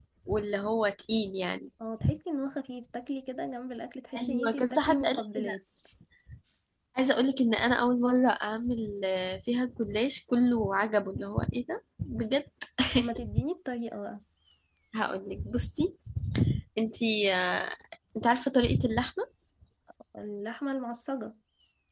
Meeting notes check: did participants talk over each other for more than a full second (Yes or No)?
Yes